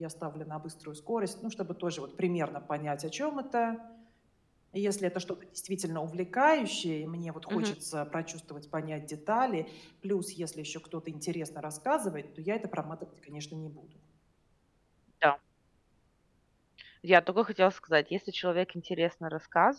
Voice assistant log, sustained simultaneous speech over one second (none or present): none